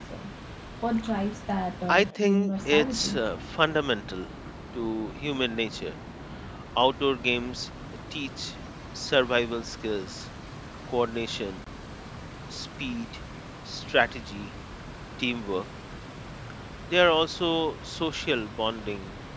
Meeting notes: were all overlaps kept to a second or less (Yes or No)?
No